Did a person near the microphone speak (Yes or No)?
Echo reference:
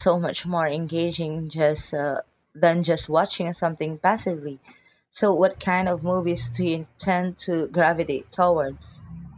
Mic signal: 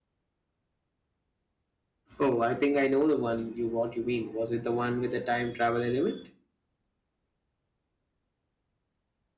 Yes